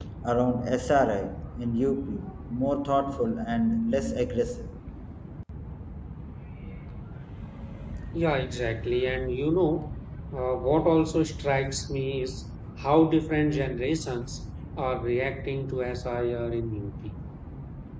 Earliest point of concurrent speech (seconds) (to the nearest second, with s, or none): none